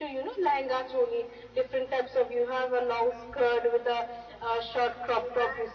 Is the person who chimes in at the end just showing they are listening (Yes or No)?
Yes